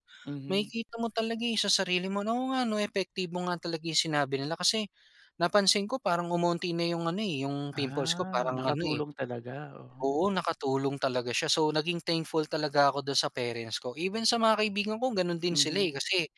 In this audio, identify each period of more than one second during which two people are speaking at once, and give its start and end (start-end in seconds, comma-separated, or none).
7.8-9.0